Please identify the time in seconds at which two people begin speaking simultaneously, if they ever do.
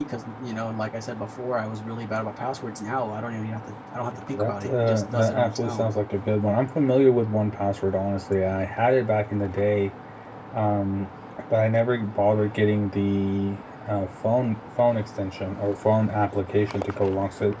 4.3 s

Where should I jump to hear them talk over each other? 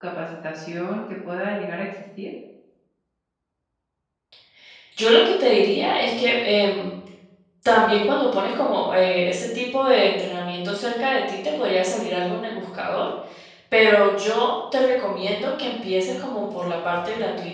none

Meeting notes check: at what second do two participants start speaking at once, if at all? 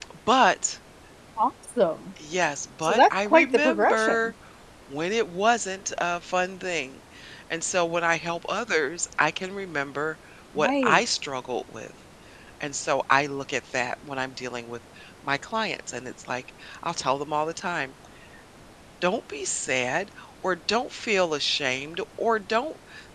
2.8 s

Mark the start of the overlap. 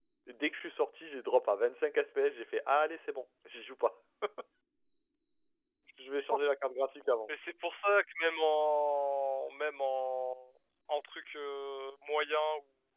none

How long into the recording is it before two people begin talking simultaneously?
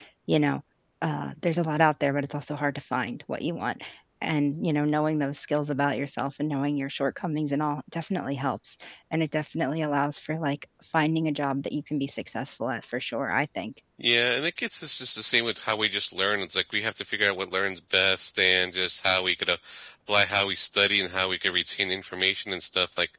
none

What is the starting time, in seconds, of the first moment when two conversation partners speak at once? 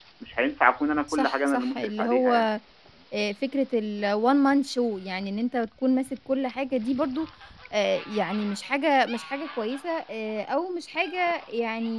1.1 s

